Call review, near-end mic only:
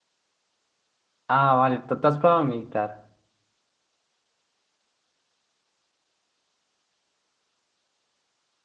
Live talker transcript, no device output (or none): Ah, vale, ¿tú, tú has probado meditar?